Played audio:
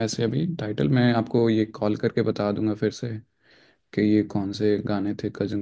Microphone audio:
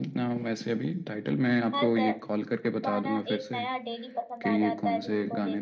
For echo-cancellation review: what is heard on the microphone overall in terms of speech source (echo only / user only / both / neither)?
both